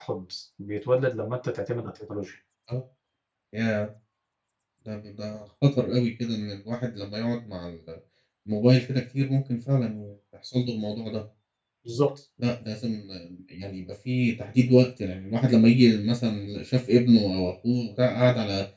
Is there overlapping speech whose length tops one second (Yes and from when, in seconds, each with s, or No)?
No